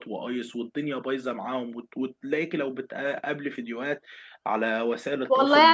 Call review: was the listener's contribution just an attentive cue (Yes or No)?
No